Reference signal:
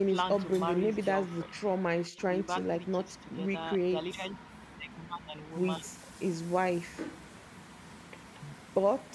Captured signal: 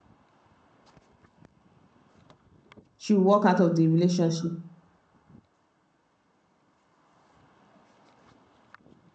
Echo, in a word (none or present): none